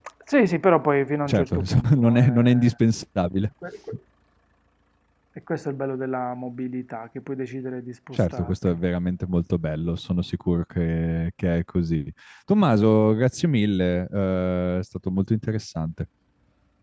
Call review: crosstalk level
present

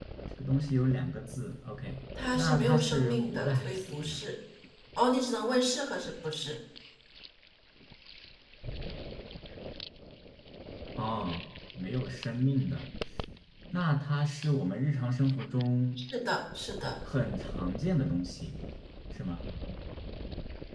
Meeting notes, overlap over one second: present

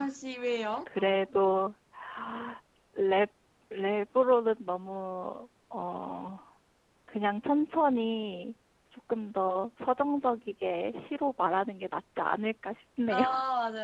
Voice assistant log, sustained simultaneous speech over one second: none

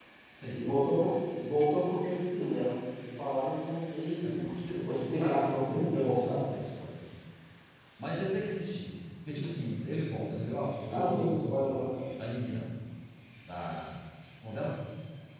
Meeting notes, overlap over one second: present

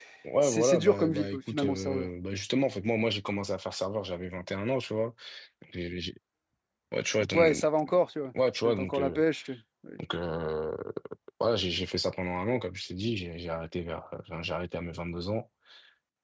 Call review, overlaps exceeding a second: present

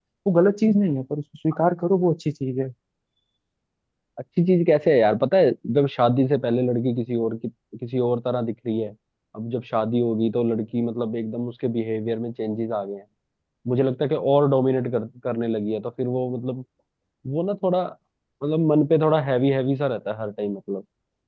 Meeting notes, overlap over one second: none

